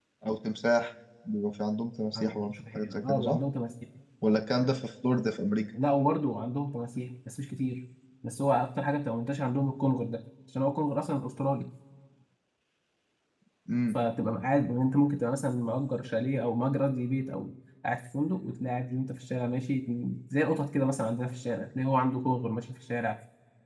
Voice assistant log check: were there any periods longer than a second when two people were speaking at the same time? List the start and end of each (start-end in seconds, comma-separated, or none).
2.2-3.4